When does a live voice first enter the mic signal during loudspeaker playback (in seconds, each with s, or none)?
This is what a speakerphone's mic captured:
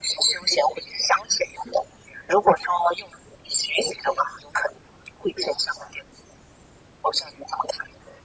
none